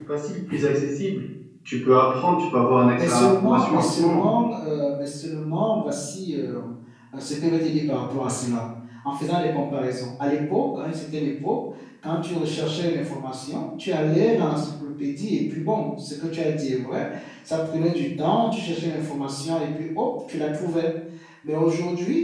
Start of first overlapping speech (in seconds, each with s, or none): 3.0 s